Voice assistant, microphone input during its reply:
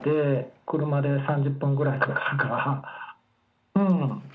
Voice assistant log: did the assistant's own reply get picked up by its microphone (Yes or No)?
Yes